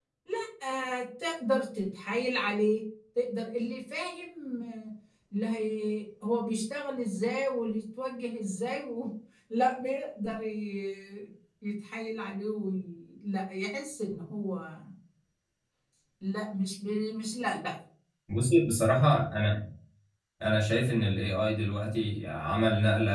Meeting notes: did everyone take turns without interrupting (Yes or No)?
Yes